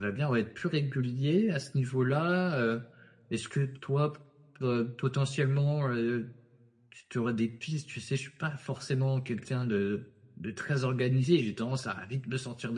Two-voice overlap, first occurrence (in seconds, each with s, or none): none